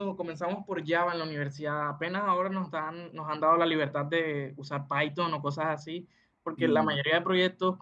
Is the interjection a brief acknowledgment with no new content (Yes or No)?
Yes